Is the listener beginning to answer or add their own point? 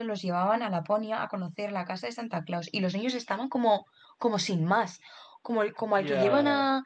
No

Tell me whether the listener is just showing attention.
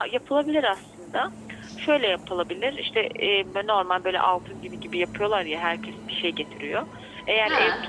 Yes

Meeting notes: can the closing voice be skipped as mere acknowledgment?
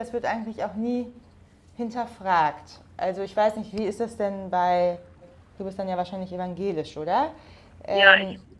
No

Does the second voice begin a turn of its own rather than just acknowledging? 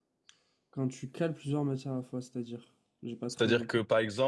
Yes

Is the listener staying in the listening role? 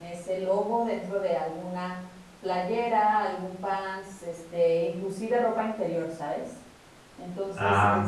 Yes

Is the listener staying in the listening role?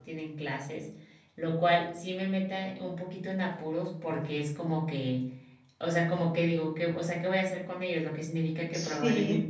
Yes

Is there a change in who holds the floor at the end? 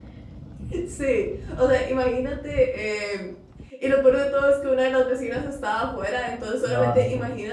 No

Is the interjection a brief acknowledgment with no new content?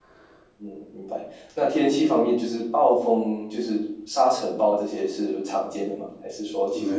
No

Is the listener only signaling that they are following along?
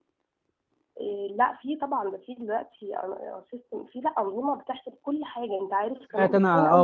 No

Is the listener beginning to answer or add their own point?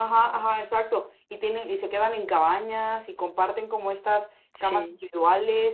No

